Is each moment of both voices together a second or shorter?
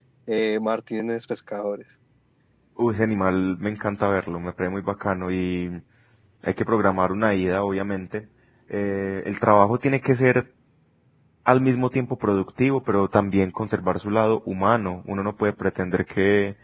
Yes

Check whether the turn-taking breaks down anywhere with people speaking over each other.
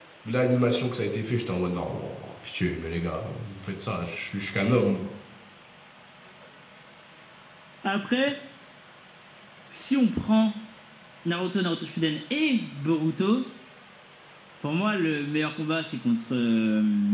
No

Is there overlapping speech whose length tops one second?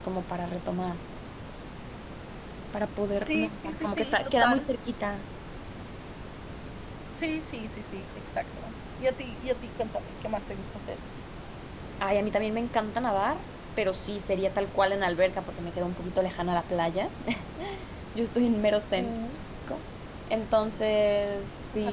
Yes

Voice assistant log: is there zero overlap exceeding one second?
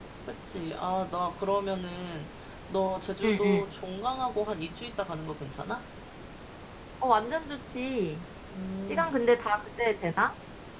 Yes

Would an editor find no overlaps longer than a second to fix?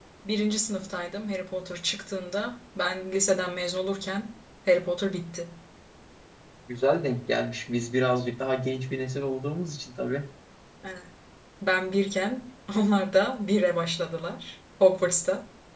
Yes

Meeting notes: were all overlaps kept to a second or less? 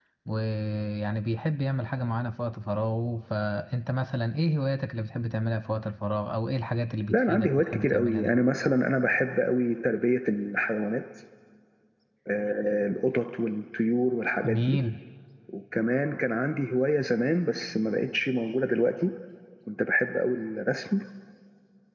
No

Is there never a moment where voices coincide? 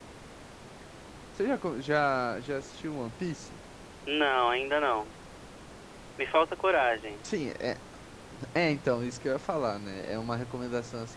Yes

